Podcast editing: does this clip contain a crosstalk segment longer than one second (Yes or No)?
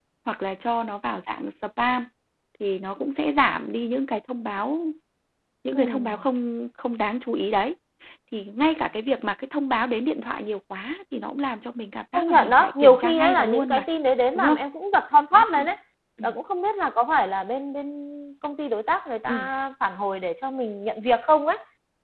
Yes